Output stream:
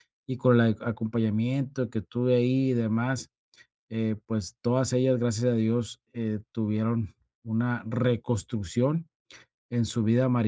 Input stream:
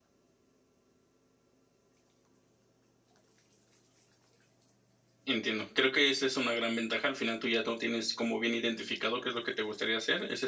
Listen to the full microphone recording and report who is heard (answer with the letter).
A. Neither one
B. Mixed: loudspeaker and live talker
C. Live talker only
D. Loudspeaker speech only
C